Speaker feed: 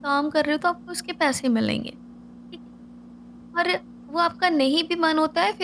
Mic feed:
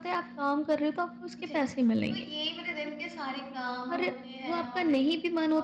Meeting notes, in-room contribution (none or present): present